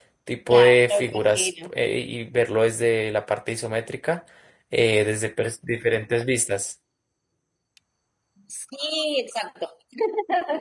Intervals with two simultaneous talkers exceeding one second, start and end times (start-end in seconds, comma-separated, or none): 0.5-1.7